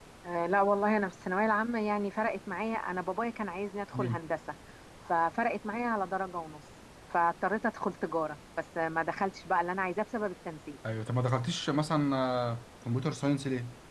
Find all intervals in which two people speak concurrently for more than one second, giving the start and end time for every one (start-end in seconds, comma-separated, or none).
none